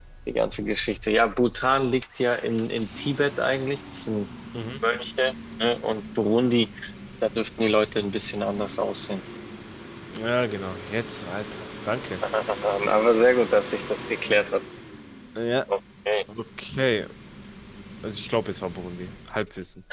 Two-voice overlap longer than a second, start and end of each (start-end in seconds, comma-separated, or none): none